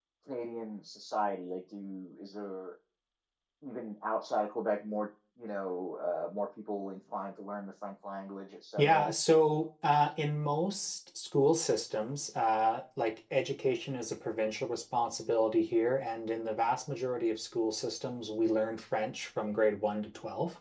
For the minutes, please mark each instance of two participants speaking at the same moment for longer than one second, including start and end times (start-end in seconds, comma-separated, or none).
none